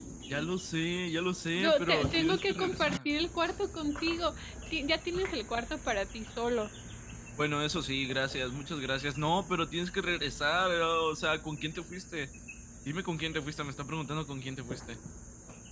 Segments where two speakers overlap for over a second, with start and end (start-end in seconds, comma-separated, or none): 1.6-3.1